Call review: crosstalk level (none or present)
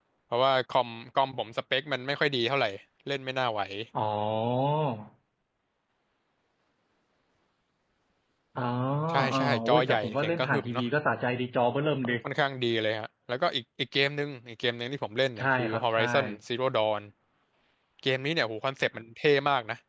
present